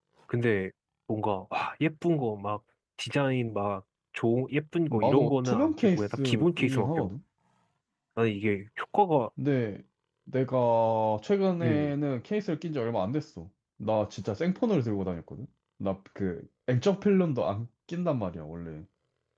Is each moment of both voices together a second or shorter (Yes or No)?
No